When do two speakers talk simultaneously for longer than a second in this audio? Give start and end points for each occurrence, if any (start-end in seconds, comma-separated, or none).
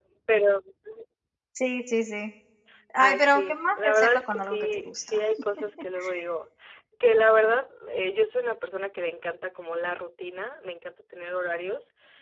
3.0-5.2